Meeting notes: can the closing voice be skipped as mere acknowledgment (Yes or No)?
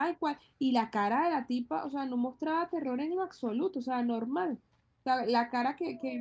Yes